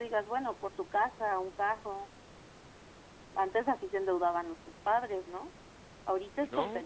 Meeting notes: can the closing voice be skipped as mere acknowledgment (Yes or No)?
Yes